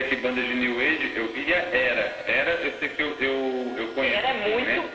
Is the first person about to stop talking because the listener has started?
Yes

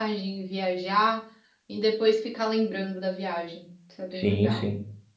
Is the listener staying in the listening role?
No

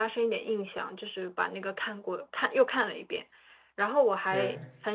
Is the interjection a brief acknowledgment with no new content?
Yes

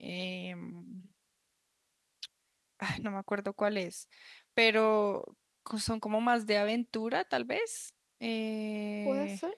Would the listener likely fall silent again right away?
No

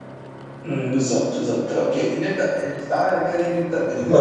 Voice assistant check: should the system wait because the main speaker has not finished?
Yes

